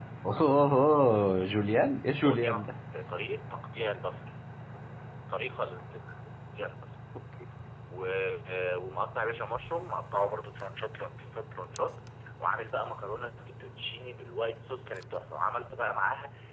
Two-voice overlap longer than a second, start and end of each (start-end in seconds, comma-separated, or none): none